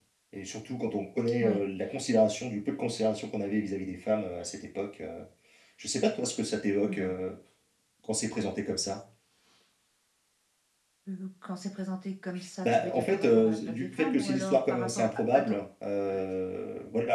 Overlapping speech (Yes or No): Yes